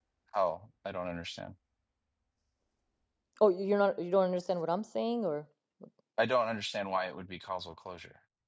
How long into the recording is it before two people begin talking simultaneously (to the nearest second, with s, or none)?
none